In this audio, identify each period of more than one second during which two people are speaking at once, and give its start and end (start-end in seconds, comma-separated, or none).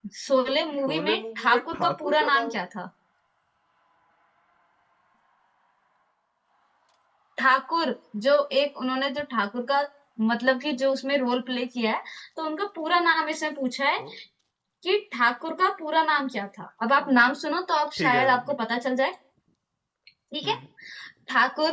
0.9-2.5